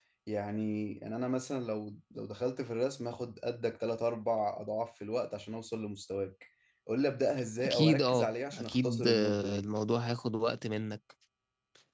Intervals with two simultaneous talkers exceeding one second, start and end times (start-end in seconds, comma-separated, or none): 7.6-9.7